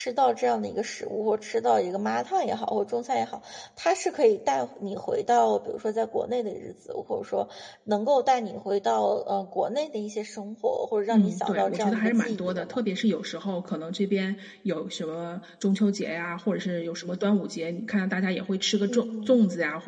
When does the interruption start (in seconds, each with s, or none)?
11.1 s